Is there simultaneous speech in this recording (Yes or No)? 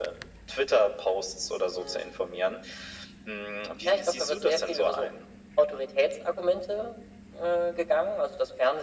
Yes